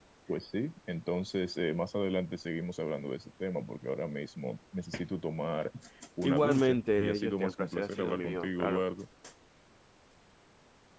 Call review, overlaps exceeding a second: present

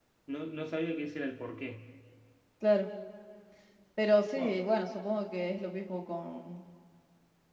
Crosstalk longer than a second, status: none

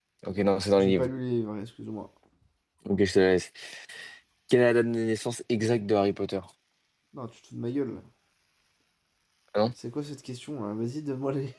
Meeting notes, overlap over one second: none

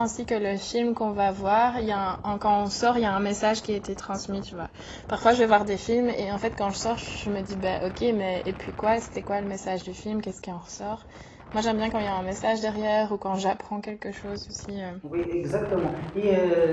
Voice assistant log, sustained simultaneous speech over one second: none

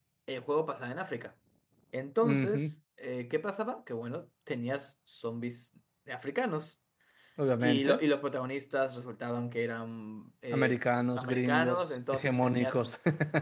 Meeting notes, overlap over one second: present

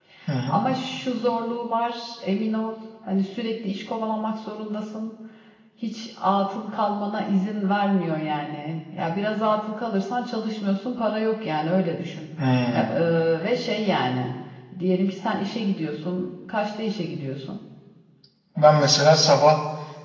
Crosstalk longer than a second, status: none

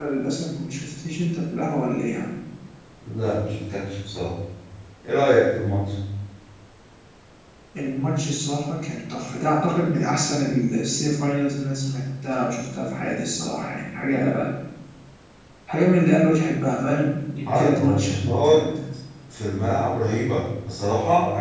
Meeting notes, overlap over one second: present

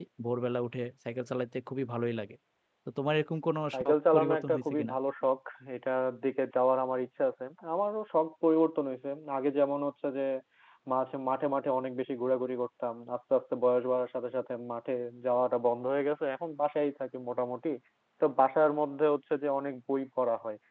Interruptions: present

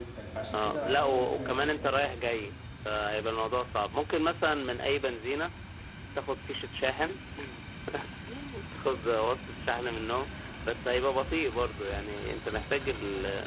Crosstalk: present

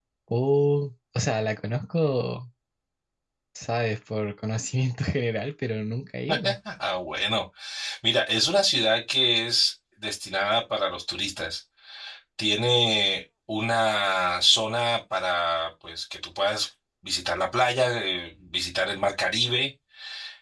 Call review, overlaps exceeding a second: none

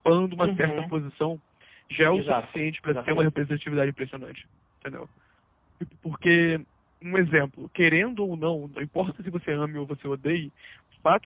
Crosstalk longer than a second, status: present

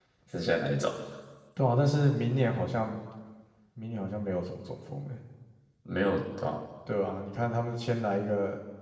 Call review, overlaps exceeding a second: none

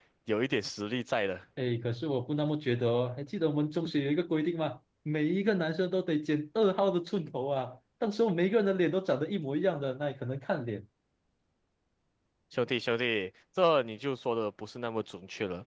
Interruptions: none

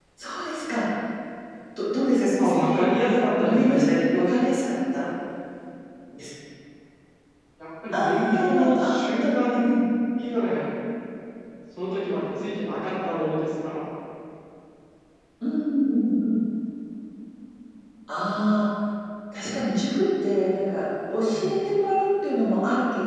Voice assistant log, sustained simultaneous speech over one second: present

